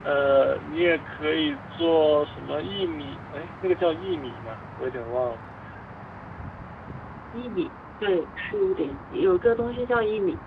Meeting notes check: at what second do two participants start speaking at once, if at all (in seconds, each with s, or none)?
none